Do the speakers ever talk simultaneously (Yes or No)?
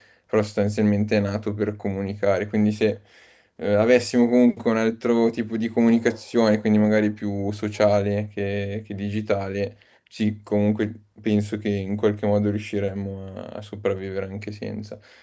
No